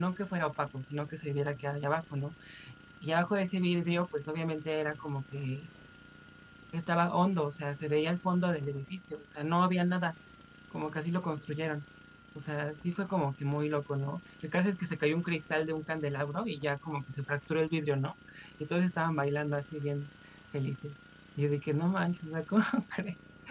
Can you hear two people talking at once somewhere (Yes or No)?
No